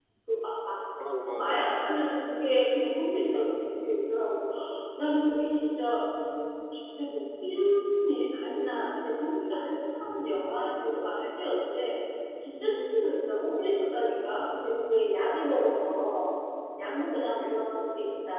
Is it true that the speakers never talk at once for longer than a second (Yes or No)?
Yes